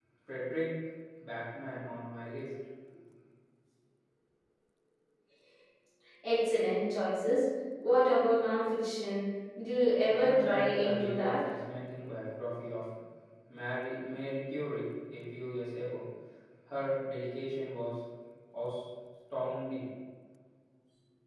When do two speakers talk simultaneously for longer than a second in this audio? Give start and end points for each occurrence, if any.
10.1-11.5

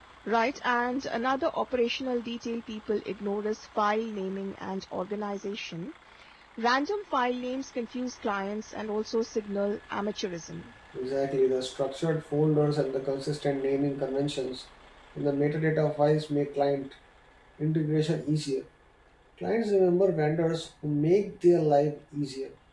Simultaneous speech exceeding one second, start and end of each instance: none

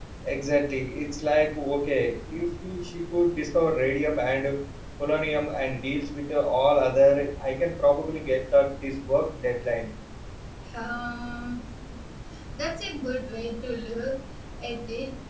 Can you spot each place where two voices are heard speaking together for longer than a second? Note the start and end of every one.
none

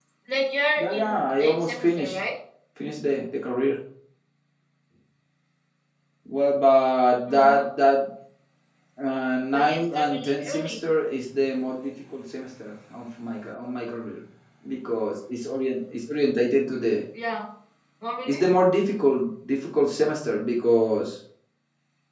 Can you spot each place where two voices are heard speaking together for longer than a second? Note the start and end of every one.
0.8-2.2, 9.5-10.8

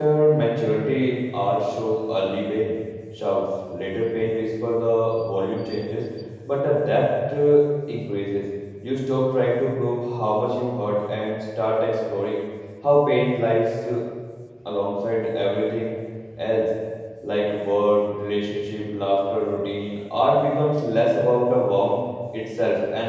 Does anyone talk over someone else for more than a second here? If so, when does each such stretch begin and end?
none

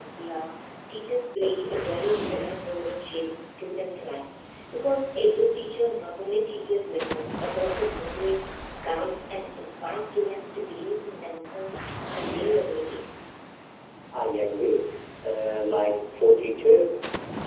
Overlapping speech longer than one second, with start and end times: none

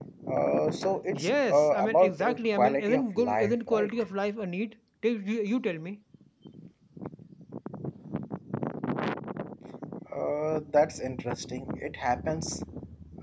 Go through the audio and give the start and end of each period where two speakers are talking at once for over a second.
1.2-3.9

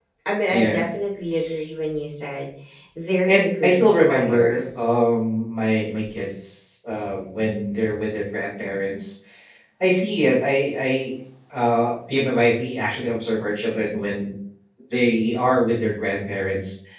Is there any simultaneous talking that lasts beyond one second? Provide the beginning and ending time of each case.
3.3-4.8

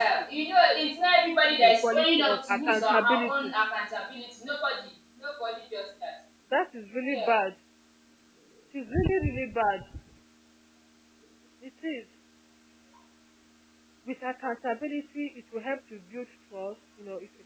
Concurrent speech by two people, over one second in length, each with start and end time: 1.6-3.3

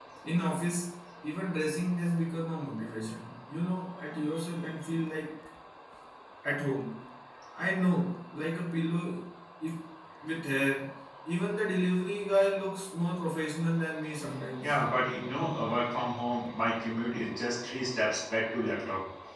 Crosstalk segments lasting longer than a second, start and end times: none

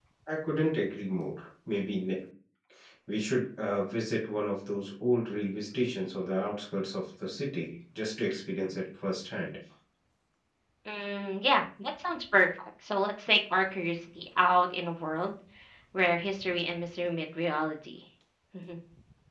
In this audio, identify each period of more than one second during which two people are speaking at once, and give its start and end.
none

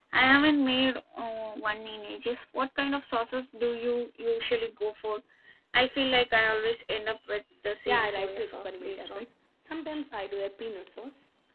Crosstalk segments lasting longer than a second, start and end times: 7.9-9.3

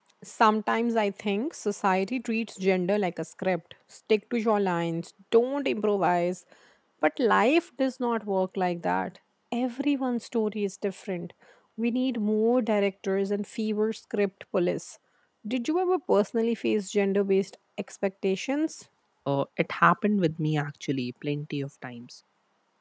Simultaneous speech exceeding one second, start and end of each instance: none

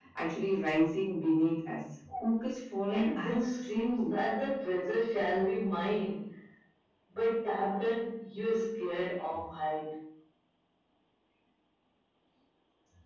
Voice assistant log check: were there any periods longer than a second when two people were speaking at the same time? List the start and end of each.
2.9-4.2

